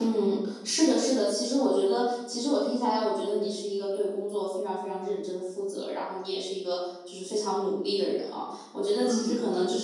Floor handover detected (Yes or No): No